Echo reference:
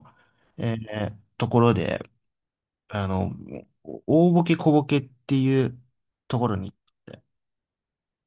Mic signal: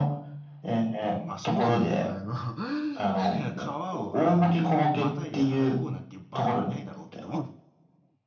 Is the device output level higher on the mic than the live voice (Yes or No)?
Yes